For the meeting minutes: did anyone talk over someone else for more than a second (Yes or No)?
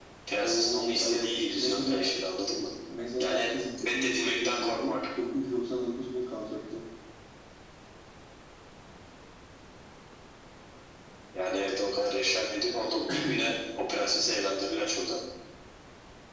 Yes